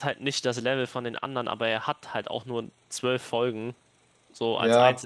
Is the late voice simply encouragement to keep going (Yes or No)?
No